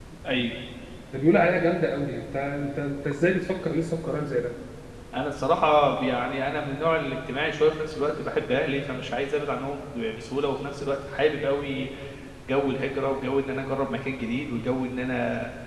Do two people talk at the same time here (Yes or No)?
No